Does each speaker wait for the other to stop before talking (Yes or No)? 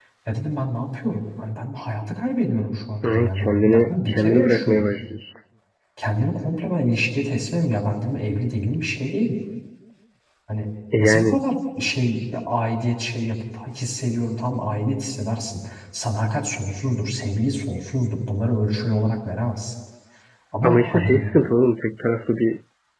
No